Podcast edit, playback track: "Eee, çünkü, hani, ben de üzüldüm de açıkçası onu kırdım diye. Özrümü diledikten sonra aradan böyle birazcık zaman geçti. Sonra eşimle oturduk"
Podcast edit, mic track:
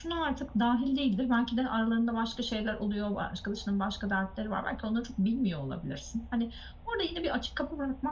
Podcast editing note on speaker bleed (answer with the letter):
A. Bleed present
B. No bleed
B